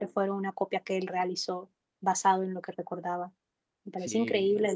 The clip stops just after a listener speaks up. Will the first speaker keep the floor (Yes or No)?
No